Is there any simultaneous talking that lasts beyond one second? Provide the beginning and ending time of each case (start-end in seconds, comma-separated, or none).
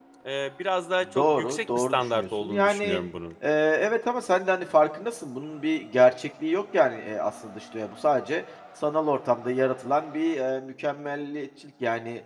1.1-3.0